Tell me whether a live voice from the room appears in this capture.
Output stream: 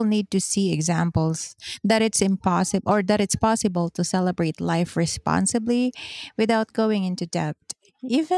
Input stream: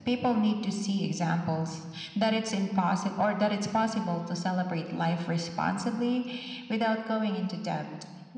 No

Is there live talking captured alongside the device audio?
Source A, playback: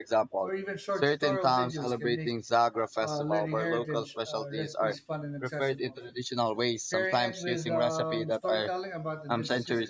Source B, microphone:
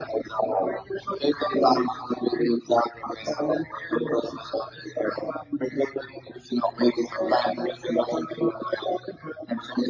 No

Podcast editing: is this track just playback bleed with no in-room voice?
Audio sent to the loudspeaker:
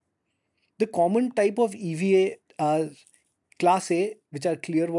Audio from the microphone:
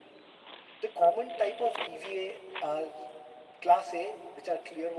Yes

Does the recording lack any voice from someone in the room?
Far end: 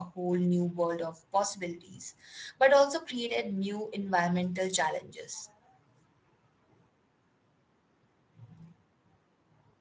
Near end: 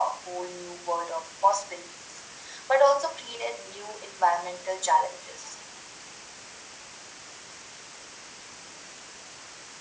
Yes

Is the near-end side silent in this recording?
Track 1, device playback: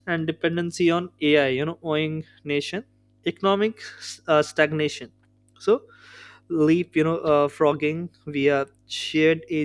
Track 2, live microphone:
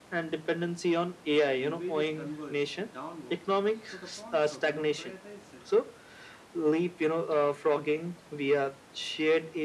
No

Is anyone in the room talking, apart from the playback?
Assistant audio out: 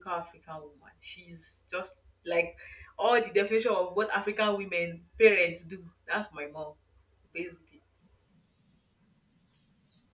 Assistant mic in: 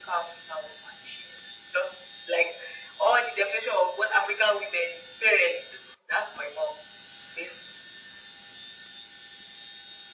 No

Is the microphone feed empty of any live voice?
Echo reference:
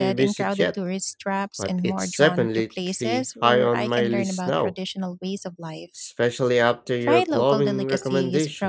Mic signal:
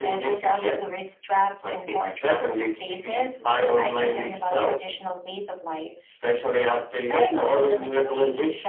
Yes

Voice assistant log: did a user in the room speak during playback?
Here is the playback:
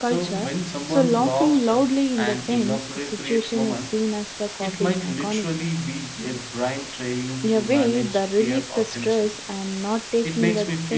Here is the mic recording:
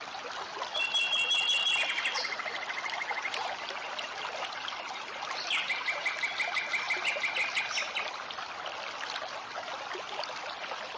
No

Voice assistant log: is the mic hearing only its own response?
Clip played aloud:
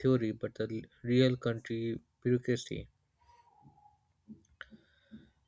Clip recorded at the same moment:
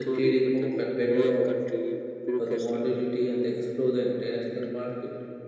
No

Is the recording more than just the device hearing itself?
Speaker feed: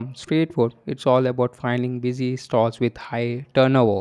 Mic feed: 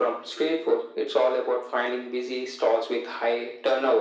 No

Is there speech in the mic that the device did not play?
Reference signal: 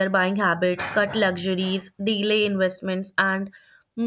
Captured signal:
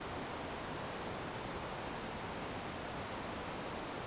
No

